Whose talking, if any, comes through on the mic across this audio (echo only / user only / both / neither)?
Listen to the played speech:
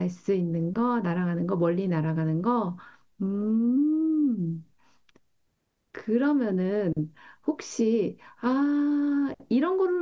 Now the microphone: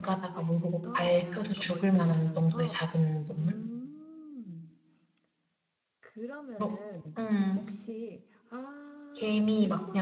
both